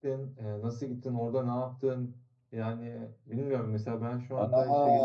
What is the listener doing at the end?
taking over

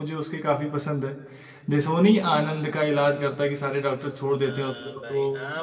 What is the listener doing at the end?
taking over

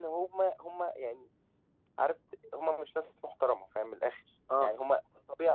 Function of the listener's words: listening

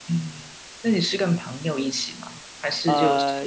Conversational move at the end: taking over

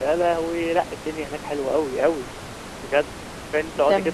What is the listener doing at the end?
listening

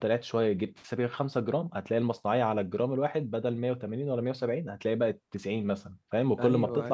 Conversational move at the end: taking over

